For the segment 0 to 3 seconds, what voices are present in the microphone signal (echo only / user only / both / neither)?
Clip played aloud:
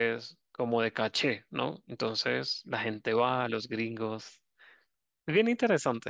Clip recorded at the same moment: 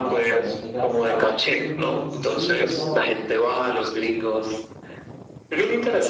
both